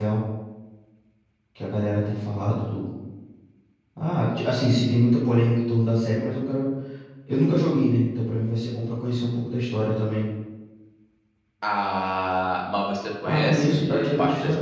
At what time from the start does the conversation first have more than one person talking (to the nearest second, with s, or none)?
13 s